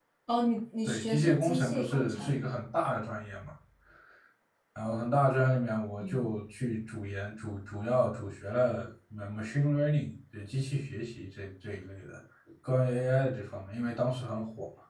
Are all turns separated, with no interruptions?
No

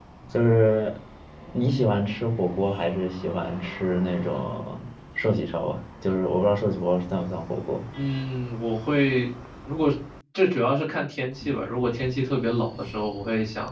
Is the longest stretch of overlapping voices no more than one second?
Yes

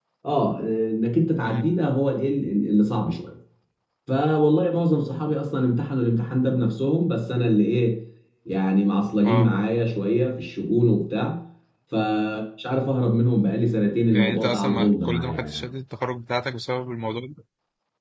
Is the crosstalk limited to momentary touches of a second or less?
No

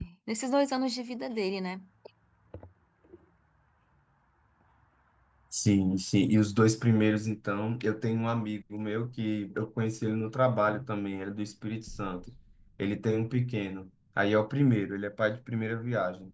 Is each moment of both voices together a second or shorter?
Yes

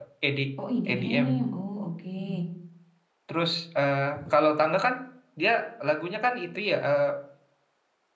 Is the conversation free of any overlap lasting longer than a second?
Yes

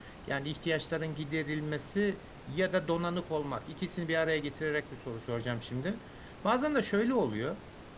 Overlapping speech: No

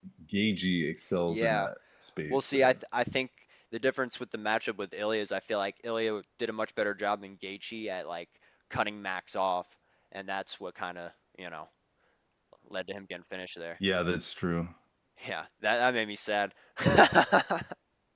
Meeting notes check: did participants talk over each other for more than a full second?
No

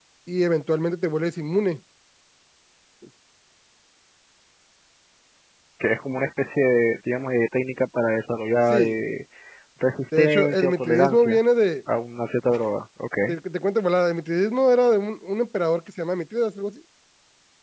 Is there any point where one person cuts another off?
Yes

